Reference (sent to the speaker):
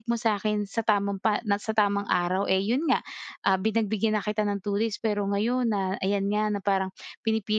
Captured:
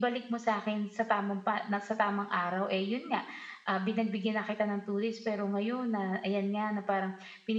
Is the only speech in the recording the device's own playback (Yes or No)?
Yes